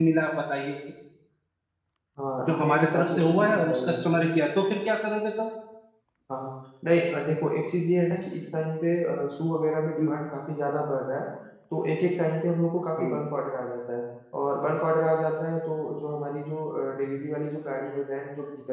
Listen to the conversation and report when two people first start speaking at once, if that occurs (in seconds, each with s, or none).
2.4 s